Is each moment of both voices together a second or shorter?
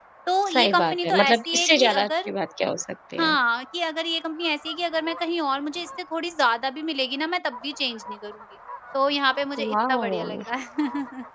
No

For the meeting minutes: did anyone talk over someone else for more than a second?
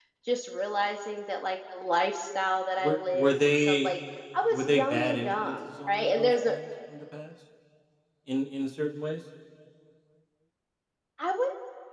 Yes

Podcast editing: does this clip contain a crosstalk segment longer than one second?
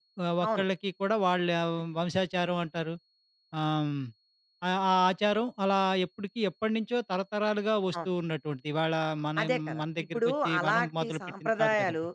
Yes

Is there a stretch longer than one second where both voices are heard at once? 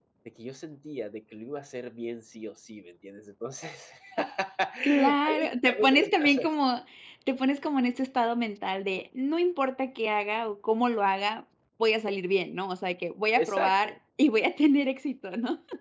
Yes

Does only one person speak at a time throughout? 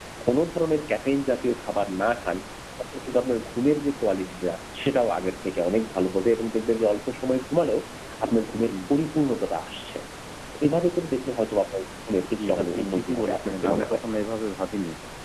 No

